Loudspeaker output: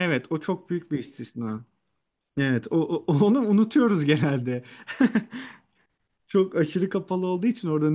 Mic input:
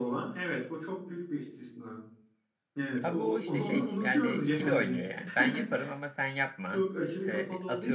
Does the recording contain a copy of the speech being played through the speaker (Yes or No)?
Yes